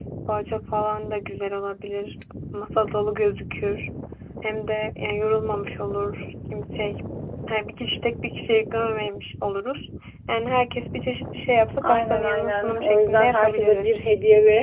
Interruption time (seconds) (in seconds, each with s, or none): 11.8 s